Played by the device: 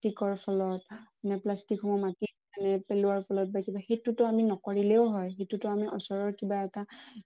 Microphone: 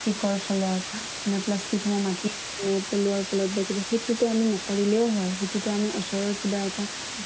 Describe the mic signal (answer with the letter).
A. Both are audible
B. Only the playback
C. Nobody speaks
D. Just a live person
B